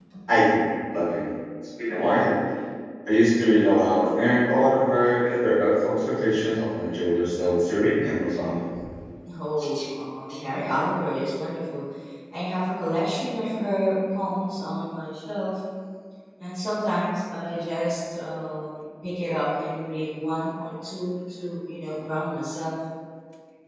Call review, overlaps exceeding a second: none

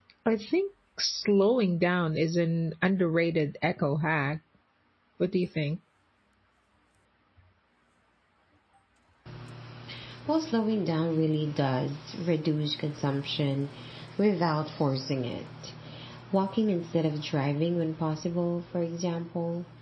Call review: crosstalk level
none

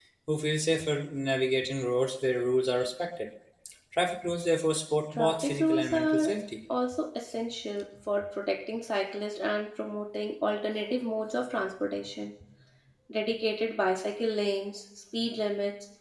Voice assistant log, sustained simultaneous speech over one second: present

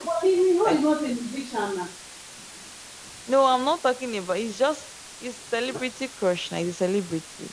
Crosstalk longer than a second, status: none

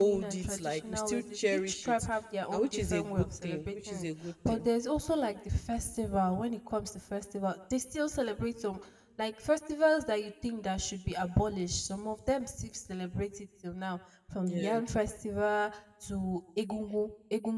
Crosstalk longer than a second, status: present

